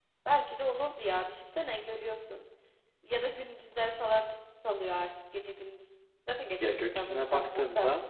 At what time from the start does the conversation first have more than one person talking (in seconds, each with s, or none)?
6.6 s